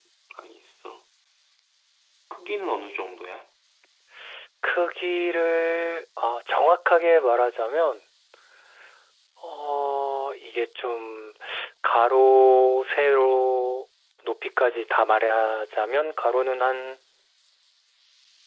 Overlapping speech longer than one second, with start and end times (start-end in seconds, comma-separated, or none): none